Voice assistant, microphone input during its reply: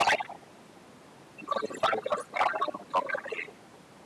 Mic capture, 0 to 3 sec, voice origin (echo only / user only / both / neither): echo only